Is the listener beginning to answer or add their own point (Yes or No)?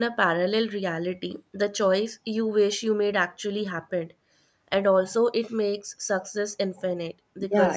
Yes